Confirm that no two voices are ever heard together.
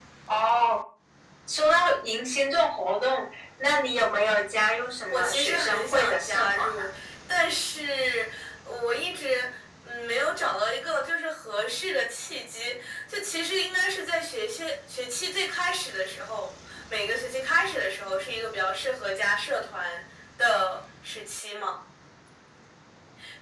No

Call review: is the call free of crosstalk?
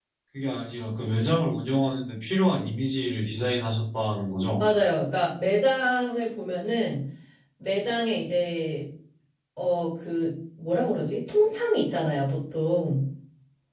Yes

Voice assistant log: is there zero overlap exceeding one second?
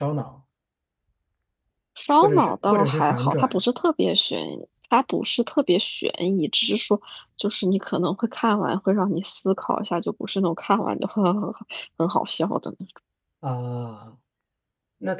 No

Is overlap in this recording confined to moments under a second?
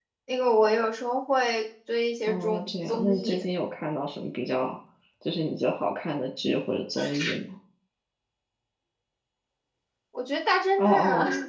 No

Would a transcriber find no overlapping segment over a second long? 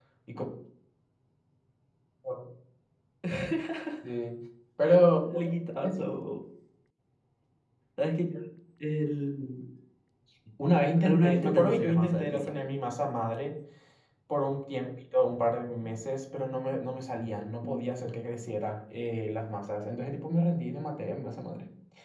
No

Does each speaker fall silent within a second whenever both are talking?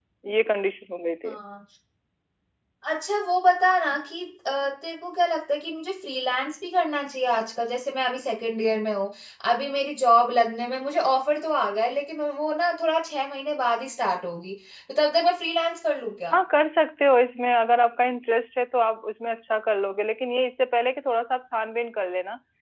Yes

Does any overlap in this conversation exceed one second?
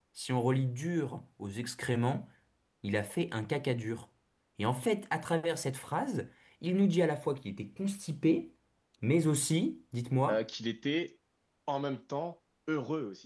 No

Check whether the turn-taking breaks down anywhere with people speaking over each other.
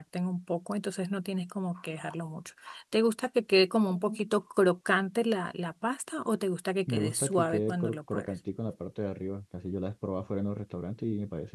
Yes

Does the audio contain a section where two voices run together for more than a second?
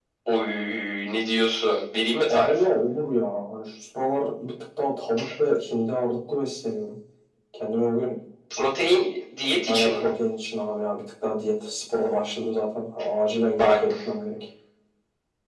No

